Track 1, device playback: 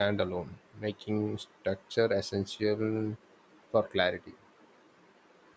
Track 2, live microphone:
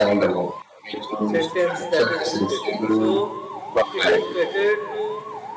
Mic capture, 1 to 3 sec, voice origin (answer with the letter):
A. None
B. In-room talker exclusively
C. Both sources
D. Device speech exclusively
C